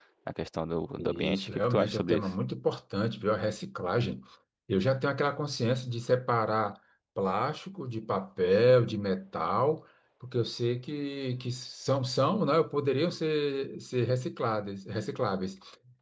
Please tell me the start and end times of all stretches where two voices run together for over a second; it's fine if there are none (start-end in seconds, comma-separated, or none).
1.0-2.3